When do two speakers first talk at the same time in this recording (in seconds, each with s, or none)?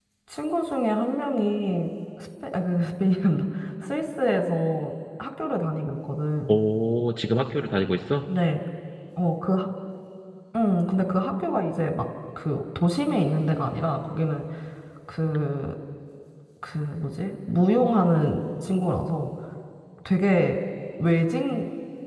none